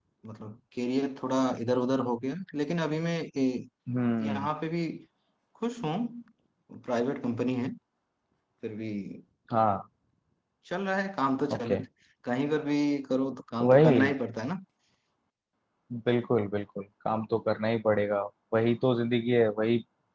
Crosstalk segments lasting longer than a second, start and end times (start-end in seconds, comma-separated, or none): none